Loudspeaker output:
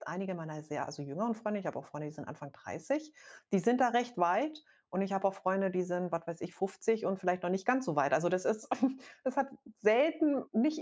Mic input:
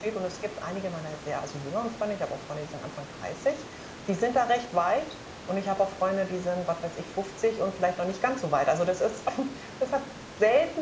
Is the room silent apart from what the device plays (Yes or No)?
Yes